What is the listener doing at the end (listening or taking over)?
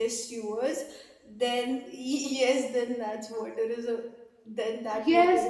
taking over